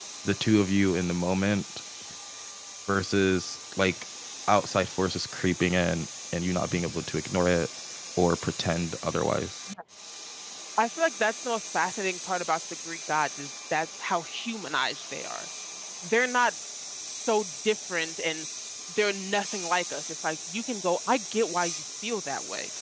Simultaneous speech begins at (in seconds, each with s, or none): none